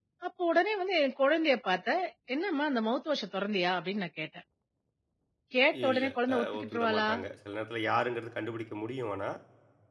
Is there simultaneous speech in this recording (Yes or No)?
Yes